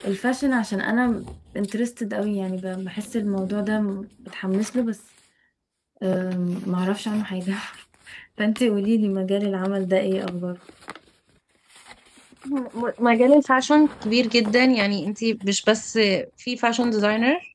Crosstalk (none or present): none